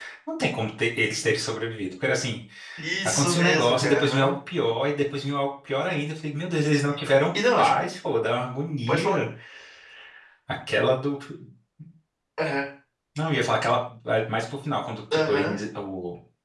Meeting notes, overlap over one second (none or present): present